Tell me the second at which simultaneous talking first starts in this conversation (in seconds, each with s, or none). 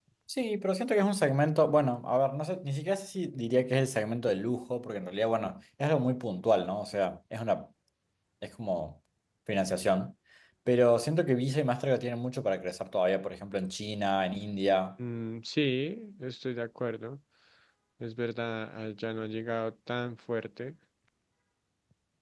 none